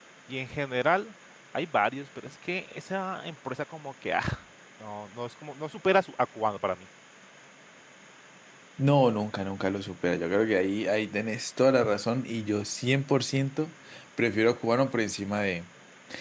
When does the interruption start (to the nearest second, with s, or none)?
none